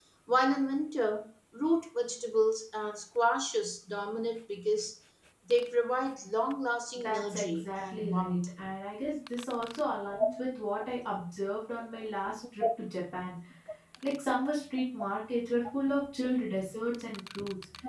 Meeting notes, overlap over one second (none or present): present